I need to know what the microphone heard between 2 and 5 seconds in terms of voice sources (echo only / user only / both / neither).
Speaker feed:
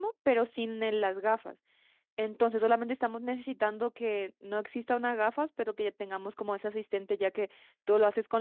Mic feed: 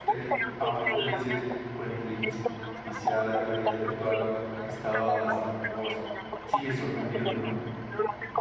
both